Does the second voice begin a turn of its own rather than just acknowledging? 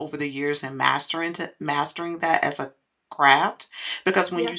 No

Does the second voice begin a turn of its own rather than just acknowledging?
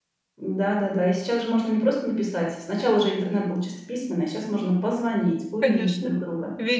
Yes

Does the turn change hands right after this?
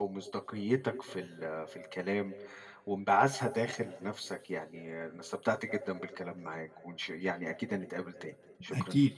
Yes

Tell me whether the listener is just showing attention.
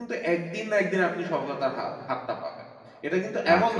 Yes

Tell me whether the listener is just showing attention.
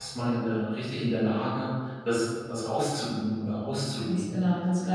No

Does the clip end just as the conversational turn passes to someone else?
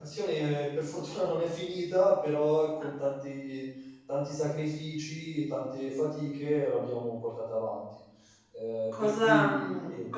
Yes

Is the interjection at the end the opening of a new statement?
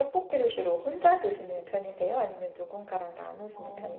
Yes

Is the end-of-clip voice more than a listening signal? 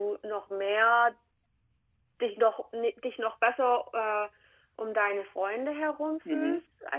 Yes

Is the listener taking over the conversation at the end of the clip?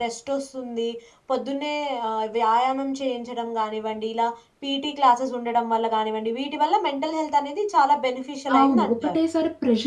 Yes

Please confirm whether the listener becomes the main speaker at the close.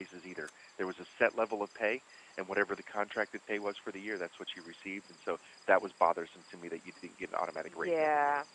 Yes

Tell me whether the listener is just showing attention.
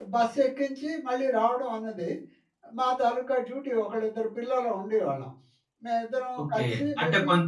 No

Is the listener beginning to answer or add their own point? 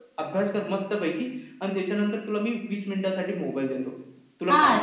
Yes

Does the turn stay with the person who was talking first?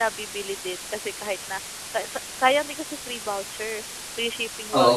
No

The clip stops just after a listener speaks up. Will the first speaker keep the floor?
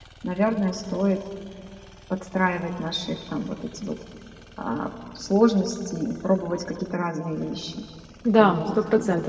No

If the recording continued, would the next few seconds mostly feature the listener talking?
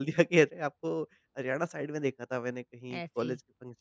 No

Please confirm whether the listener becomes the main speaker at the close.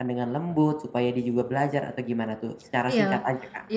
Yes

